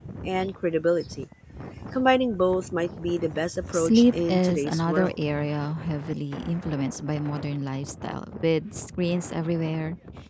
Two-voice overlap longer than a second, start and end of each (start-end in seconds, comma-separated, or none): 3.7-5.2